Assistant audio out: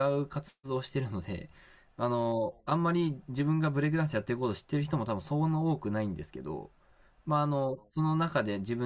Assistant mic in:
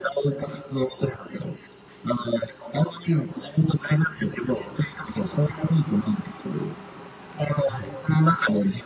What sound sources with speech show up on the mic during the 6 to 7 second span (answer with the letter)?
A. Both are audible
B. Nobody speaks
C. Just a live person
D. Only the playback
D